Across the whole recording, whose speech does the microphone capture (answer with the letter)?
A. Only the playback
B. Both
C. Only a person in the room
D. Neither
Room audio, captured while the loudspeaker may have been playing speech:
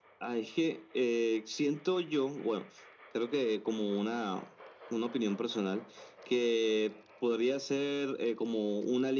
A